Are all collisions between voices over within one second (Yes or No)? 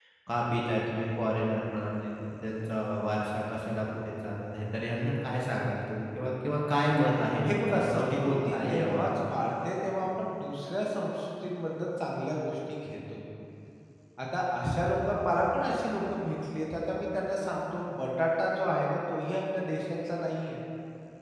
No